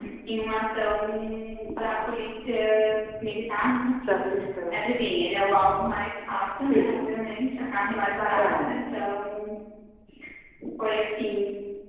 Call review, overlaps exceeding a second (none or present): none